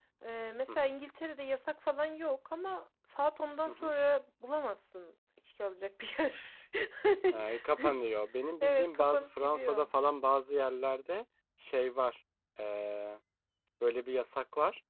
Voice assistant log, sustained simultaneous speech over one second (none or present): present